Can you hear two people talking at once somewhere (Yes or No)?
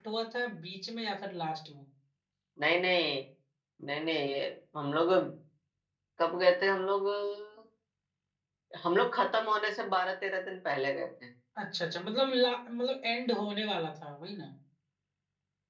No